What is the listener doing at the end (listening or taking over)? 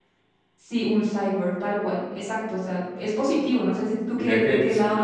taking over